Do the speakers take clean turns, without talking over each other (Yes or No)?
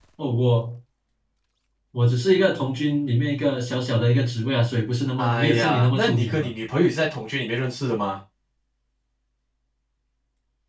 No